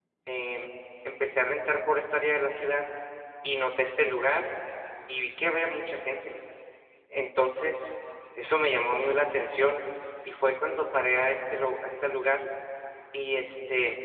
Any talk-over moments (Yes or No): No